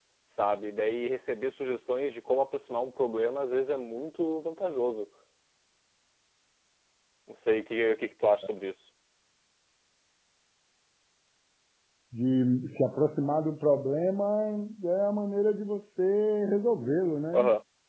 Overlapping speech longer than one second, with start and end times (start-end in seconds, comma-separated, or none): none